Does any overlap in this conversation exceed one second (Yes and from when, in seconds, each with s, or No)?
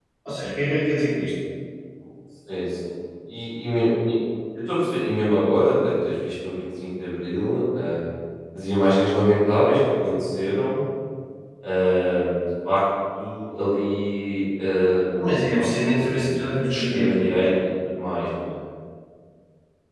Yes, from 15.2 s